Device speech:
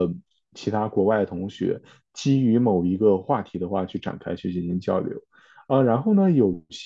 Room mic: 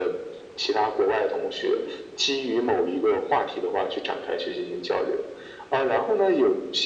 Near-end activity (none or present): none